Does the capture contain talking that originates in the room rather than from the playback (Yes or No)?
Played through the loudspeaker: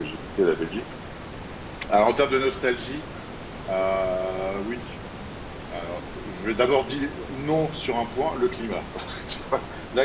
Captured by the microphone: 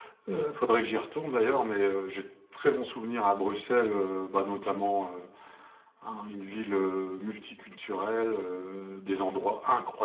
Yes